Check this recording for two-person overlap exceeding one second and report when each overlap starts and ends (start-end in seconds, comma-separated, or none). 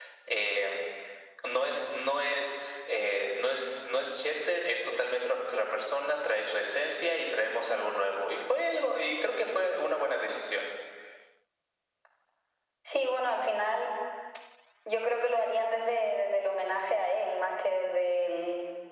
none